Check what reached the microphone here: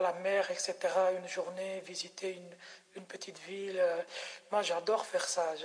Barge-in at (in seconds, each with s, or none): none